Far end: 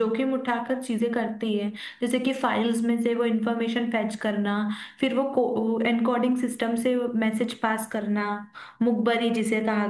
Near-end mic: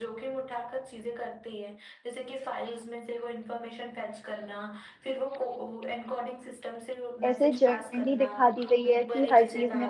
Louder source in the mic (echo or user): user